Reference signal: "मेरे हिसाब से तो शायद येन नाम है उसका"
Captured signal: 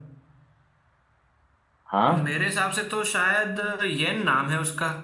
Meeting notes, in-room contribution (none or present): present